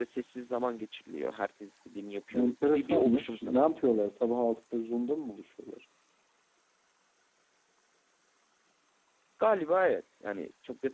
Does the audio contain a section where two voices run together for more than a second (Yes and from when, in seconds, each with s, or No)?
Yes, from 2.3 s